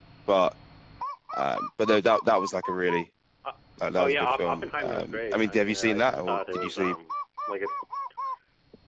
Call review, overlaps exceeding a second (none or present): present